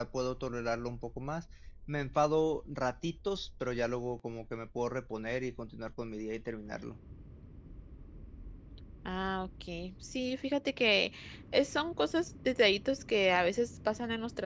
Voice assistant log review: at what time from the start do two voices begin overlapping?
none

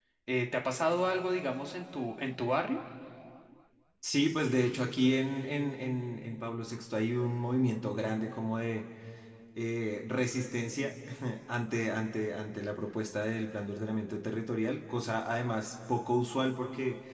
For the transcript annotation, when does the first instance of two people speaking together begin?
none

